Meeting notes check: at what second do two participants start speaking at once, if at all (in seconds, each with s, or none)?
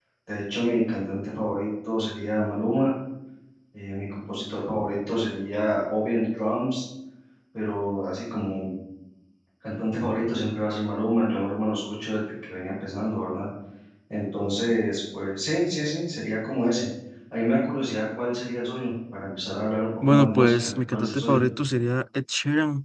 20.0 s